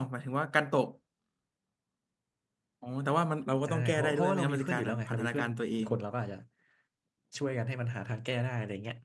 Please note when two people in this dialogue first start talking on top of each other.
4 s

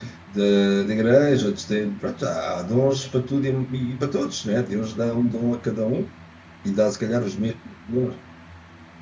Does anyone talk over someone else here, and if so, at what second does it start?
none

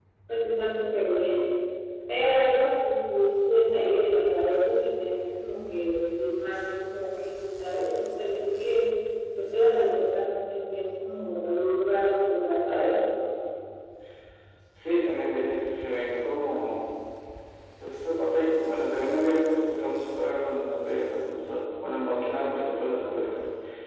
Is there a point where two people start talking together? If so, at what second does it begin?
none

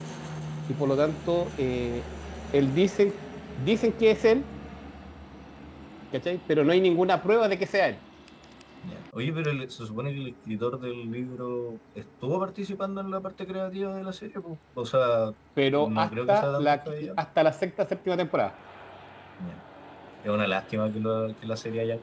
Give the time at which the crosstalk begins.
16 s

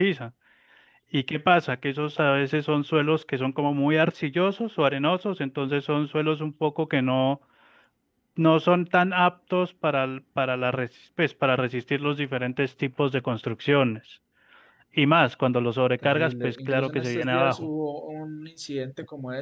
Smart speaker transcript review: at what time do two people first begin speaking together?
16 s

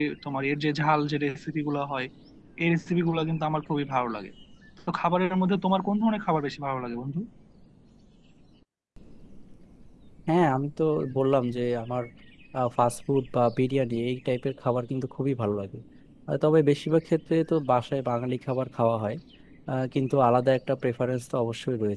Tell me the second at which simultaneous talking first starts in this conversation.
none

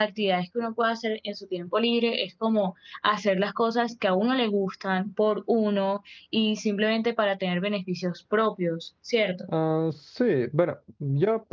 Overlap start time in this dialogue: none

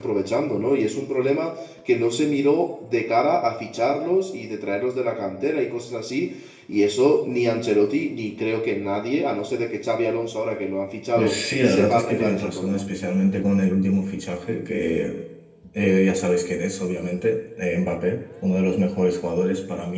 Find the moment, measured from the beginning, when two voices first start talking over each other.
11 s

